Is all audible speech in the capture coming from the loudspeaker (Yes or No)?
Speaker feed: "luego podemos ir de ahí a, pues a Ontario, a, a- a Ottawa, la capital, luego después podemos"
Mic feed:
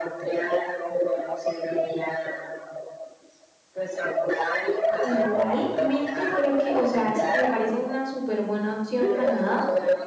No